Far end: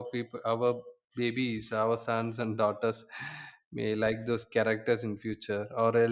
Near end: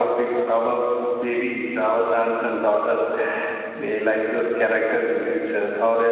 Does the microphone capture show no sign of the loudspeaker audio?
No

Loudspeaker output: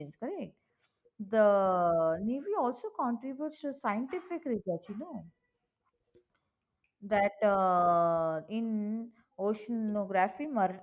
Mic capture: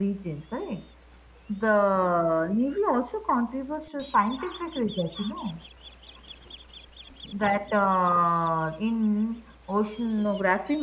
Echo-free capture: No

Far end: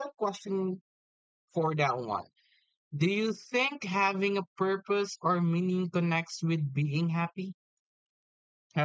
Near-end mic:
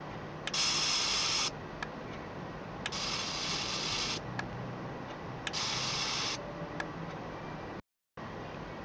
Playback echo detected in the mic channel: No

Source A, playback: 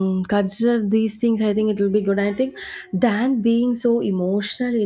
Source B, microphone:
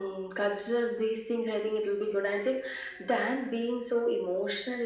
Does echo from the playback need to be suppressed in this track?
Yes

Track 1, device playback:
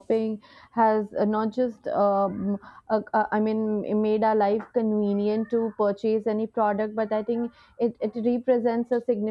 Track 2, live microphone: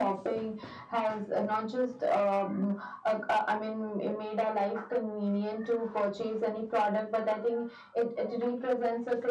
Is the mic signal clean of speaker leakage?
No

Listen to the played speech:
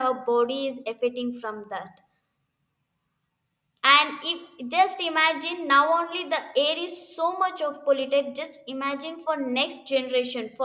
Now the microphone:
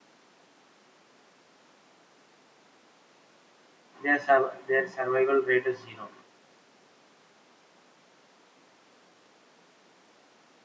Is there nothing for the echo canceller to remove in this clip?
Yes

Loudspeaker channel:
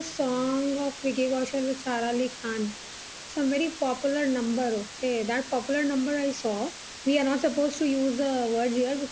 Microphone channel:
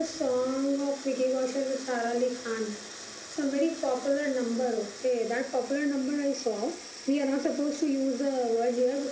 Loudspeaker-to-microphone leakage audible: Yes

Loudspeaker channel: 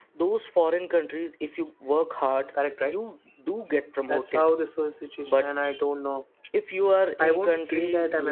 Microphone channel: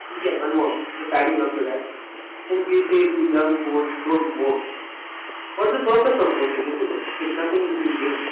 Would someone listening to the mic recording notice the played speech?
No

